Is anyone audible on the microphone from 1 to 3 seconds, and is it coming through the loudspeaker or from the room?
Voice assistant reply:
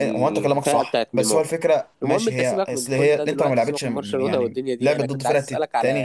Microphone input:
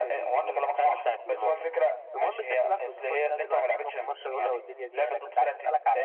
echo only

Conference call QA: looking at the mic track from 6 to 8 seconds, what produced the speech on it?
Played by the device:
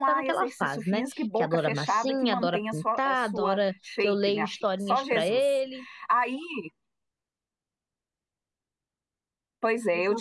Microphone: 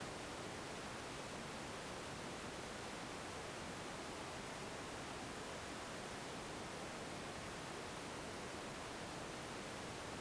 neither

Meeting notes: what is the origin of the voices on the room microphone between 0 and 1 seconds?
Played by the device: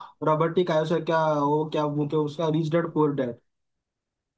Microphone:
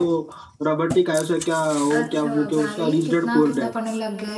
echo only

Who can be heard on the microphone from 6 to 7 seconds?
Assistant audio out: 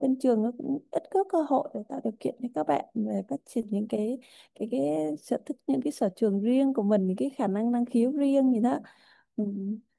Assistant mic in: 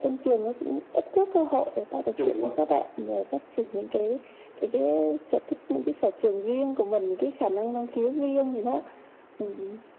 echo only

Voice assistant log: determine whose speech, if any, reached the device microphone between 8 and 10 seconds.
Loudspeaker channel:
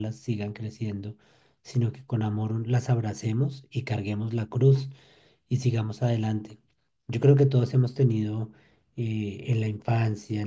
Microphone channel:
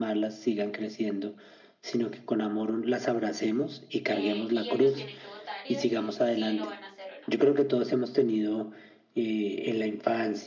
echo only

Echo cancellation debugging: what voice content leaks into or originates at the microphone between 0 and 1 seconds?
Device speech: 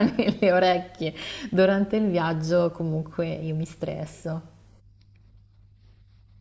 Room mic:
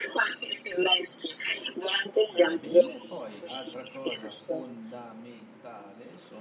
echo only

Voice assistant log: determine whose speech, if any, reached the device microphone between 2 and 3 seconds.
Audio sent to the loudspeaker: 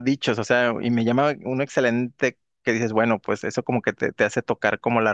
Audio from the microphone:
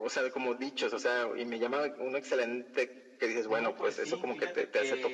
echo only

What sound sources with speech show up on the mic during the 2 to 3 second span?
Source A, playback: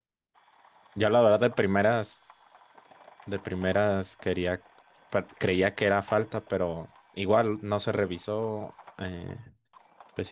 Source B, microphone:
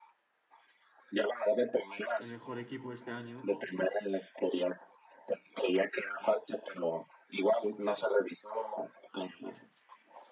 both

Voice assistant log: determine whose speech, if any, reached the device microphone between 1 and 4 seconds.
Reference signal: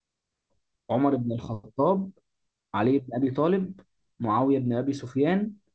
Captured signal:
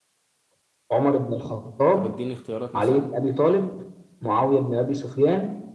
both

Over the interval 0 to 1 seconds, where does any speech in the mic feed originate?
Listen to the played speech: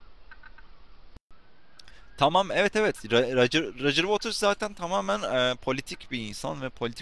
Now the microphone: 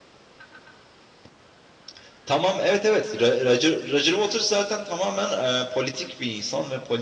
neither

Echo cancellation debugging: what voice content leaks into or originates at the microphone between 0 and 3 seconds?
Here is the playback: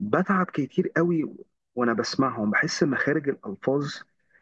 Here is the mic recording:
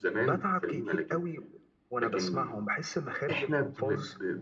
both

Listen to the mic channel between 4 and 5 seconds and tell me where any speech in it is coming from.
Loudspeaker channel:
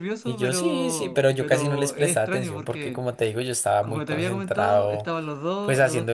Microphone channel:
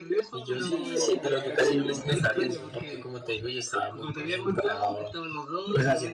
echo only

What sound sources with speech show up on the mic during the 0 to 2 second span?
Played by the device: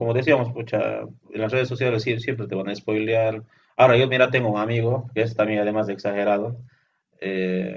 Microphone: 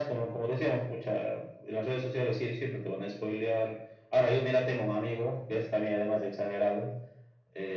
echo only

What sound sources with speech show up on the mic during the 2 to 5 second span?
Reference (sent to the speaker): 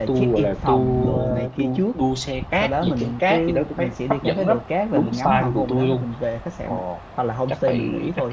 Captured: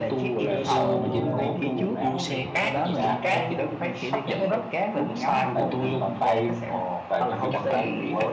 both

